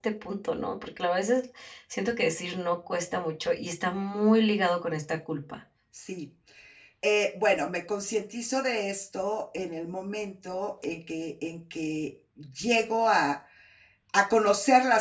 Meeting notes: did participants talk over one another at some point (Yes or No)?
No